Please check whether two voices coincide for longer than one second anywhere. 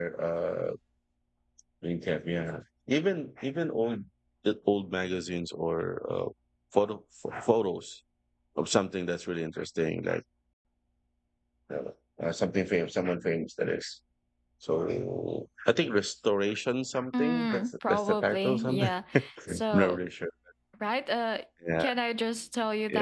Yes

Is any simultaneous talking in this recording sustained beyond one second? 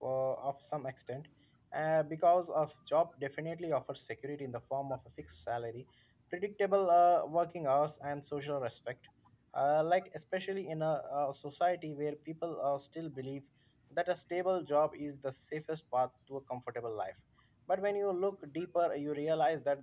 No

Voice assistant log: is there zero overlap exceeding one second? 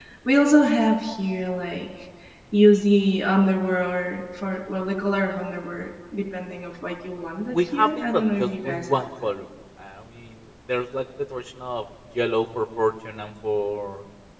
No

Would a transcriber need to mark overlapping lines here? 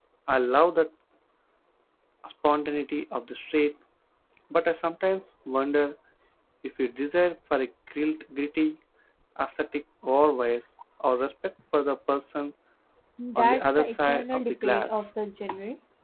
Yes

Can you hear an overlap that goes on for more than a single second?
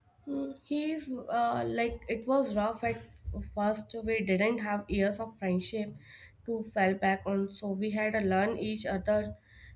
No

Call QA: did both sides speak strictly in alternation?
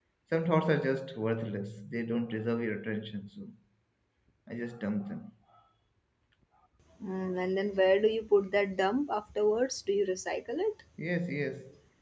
Yes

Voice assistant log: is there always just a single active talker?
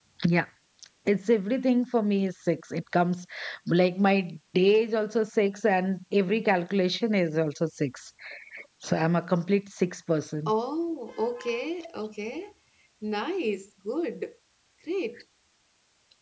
Yes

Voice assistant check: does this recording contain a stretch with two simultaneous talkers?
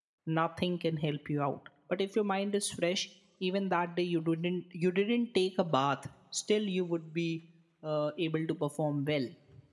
No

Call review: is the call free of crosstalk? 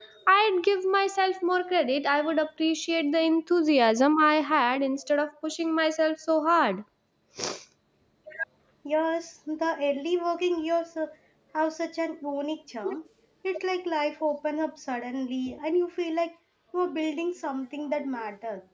Yes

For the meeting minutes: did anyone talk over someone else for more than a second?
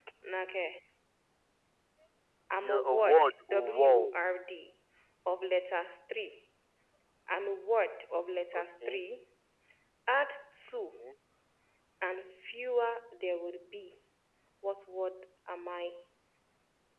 Yes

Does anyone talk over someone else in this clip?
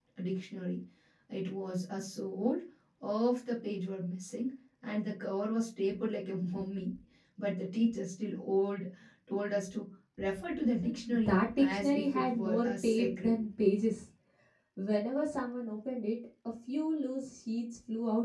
Yes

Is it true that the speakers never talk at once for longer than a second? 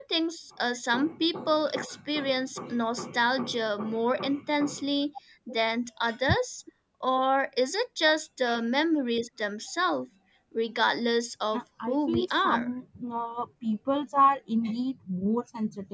No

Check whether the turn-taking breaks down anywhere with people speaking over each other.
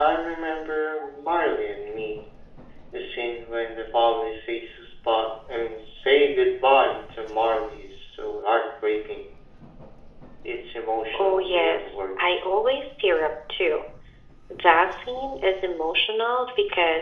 Yes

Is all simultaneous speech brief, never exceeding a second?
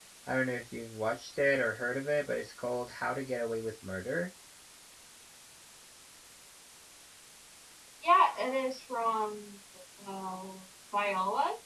Yes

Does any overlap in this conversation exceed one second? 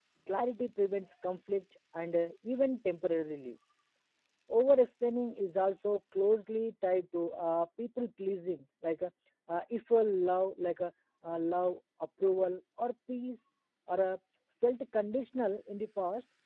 No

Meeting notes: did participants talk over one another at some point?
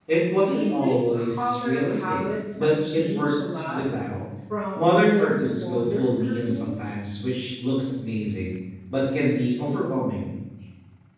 Yes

